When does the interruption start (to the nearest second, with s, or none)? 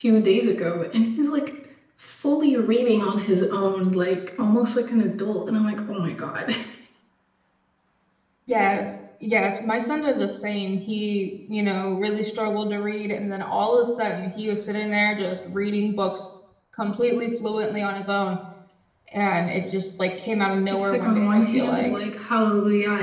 21 s